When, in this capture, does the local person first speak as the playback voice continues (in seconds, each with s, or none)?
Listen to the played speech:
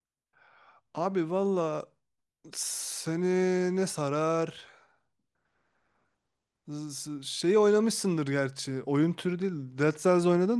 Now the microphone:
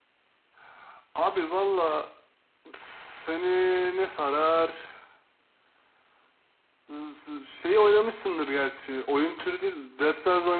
none